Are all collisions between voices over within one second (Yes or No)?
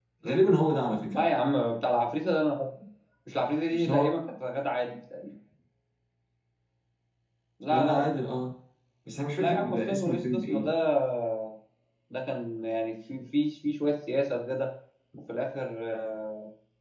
No